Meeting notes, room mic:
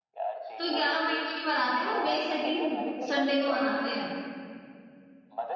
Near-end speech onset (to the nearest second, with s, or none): 1 s